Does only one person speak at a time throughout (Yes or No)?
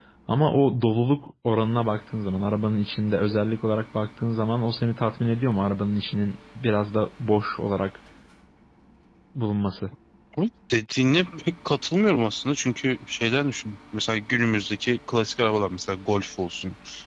Yes